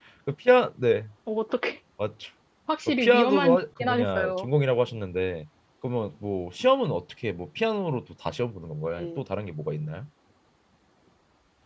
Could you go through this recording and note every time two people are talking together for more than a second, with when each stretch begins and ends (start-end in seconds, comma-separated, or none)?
2.9-4.5